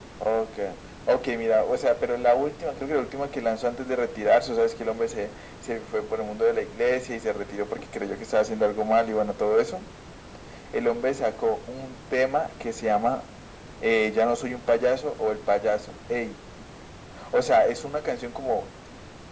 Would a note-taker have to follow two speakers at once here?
No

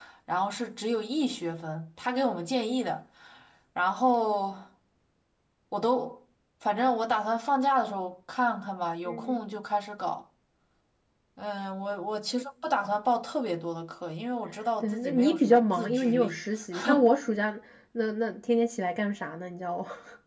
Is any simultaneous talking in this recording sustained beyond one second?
Yes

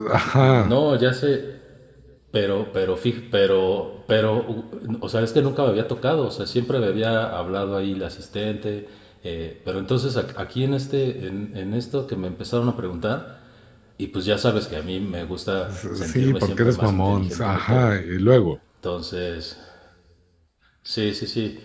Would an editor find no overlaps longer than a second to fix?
No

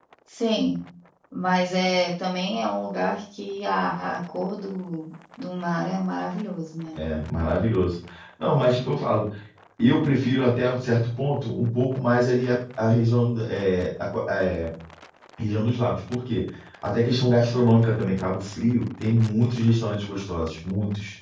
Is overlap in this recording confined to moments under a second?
Yes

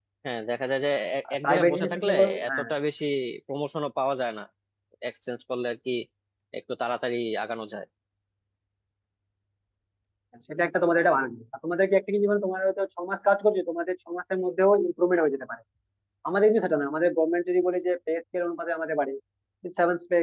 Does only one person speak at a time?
No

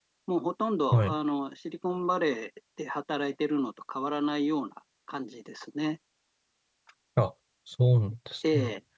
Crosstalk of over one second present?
No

